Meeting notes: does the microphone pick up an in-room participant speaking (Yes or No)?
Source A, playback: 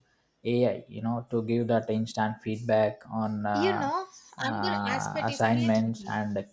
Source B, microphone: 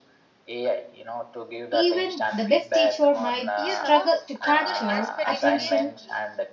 Yes